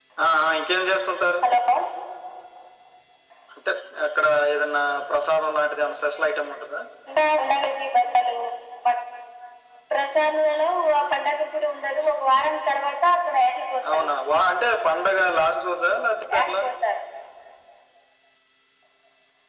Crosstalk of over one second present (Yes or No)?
No